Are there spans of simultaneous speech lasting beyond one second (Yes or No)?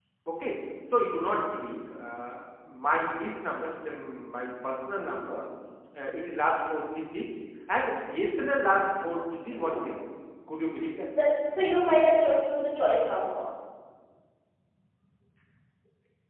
No